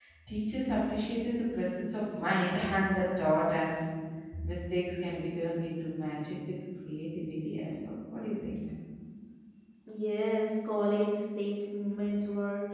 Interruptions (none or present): none